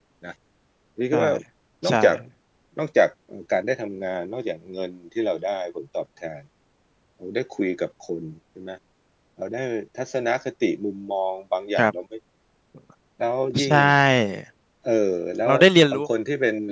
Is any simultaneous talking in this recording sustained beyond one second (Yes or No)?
No